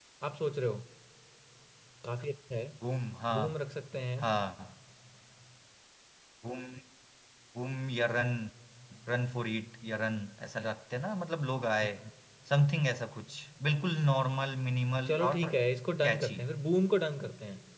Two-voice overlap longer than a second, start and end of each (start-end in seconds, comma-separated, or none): none